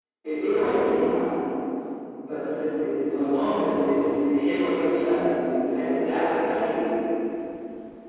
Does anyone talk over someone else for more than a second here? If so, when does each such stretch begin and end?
none

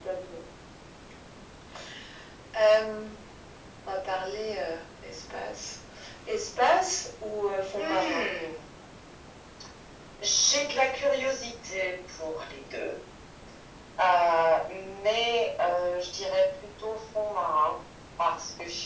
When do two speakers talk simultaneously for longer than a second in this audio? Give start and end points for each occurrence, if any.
none

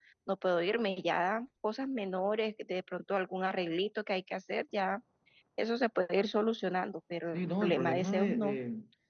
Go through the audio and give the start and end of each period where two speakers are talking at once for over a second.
7.3-8.6

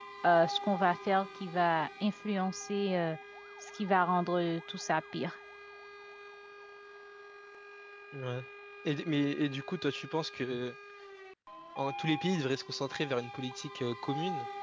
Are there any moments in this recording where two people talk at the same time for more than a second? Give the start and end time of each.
none

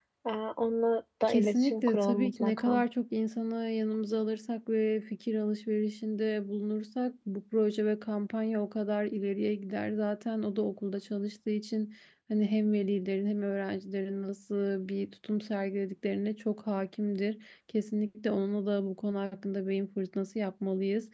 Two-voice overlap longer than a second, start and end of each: 1.3-2.8

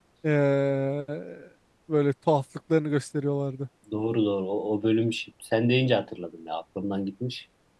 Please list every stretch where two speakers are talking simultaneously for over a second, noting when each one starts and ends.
none

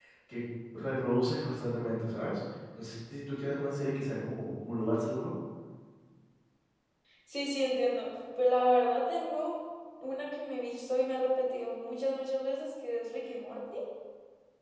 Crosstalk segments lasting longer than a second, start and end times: none

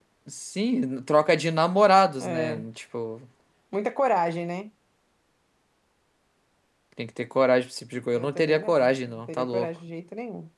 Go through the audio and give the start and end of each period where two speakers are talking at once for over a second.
8.1-9.7

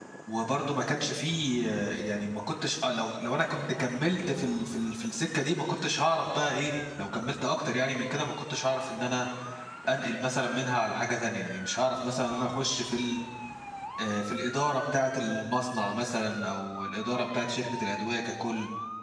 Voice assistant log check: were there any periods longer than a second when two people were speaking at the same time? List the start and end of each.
none

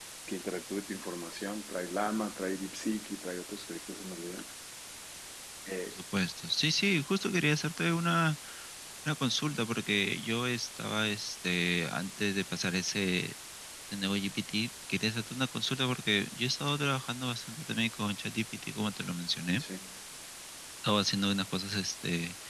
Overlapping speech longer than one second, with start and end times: none

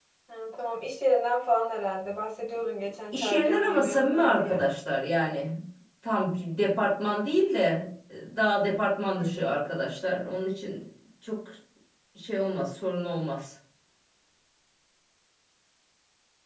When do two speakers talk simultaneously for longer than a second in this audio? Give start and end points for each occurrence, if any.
3.1-4.6

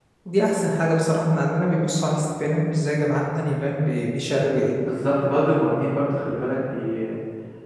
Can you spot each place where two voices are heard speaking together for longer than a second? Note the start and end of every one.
none

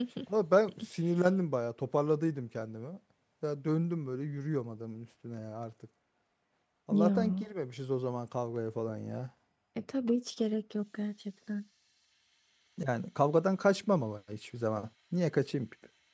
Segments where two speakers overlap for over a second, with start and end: none

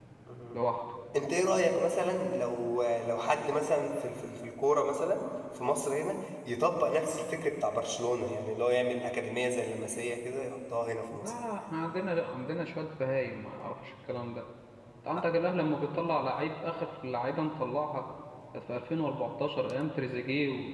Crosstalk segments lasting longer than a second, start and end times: none

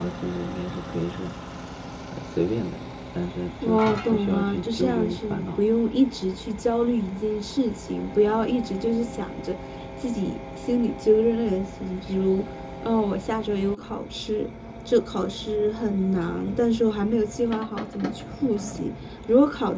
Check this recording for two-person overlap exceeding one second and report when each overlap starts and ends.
3.6-5.6

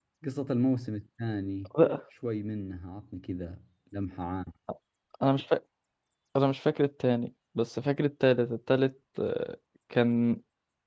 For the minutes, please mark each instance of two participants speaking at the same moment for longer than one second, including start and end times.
none

